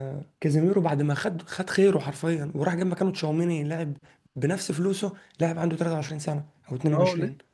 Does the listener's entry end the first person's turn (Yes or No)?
Yes